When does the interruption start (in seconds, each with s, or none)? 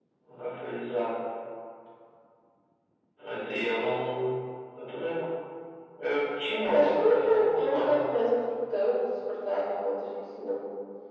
6.6 s